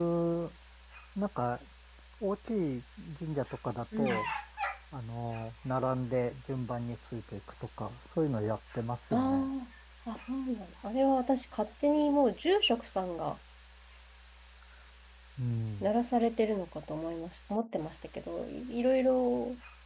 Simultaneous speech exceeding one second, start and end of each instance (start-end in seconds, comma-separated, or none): none